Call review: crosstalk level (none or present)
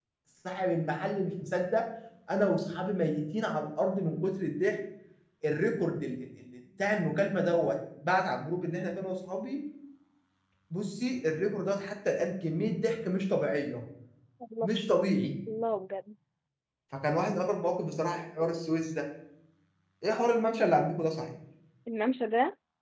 none